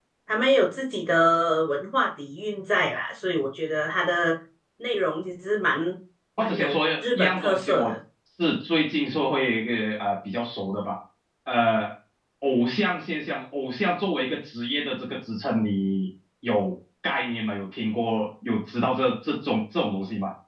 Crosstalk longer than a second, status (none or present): present